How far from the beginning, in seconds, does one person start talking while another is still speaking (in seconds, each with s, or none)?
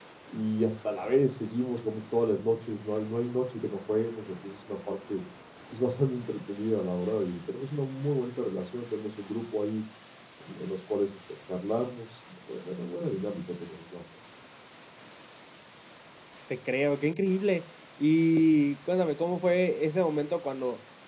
none